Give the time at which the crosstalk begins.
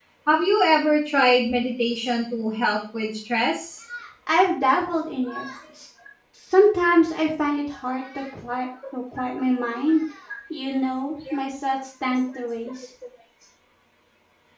none

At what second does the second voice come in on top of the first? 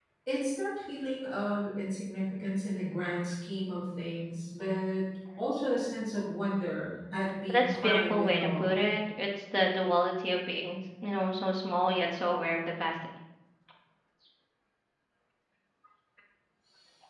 7 s

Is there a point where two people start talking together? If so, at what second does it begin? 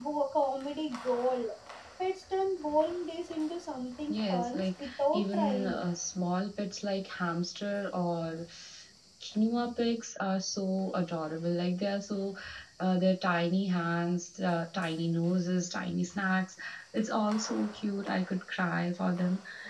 4 s

